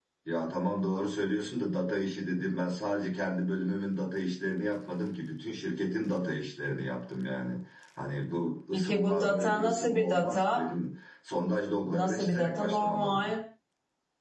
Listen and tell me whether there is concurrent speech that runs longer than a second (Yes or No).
Yes